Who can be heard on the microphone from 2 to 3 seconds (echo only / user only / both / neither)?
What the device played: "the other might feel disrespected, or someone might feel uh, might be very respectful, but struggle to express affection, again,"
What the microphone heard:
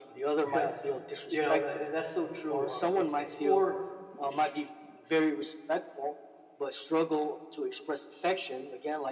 both